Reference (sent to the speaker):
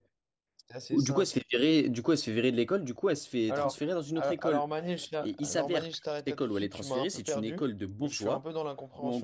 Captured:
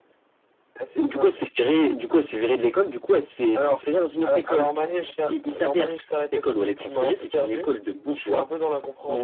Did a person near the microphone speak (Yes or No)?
No